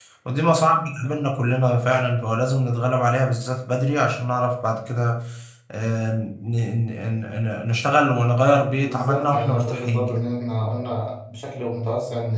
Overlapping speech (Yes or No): Yes